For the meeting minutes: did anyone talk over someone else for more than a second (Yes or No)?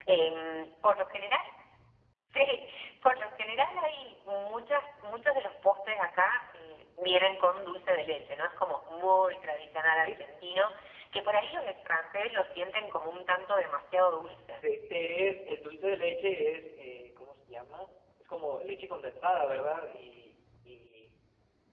No